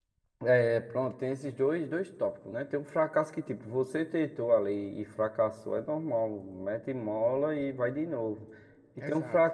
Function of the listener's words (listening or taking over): listening